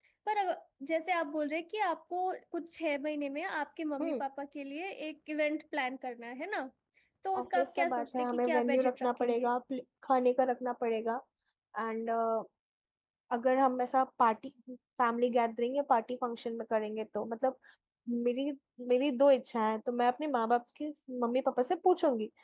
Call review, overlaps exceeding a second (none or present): present